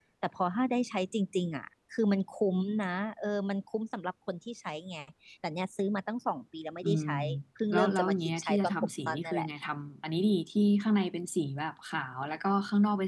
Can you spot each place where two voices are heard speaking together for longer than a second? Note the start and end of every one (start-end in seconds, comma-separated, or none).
7.7-9.5